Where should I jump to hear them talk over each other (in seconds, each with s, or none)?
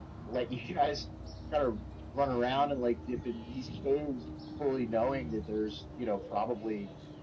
none